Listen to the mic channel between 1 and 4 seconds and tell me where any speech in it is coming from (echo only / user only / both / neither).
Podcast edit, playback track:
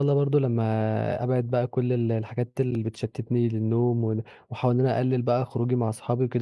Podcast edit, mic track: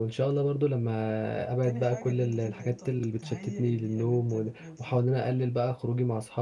both